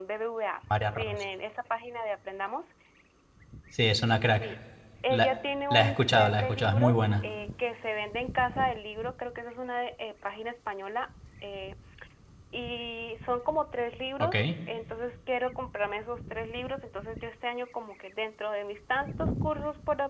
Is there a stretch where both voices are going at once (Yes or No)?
Yes